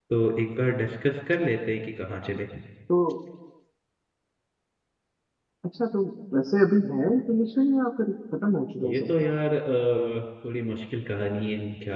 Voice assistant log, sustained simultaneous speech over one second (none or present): none